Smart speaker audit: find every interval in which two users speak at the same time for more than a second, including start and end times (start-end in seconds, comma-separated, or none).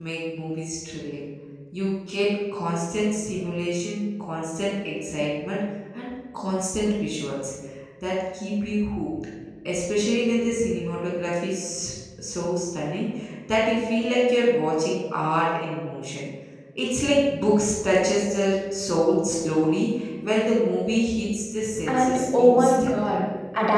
21.9-23.2